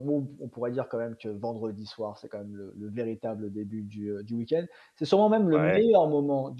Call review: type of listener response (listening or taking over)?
listening